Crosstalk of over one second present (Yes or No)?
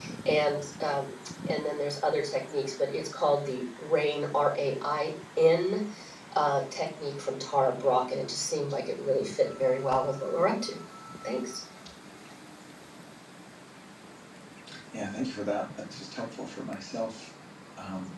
No